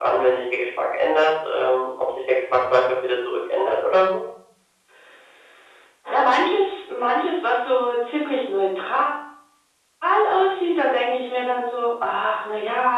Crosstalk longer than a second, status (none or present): none